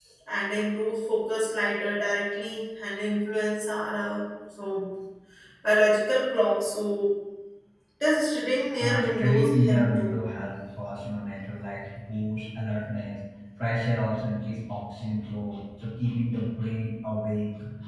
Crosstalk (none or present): present